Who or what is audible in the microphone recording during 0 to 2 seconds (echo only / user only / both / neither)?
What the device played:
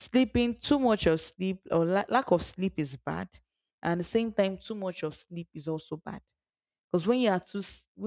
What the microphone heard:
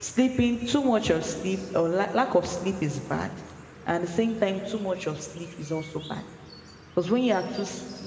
echo only